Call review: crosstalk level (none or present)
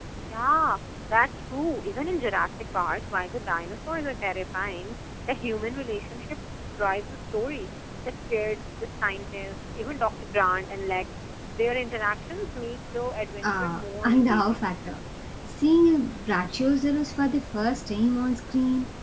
present